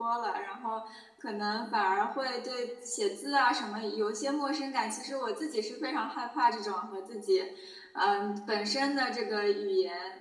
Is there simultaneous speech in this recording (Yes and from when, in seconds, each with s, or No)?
No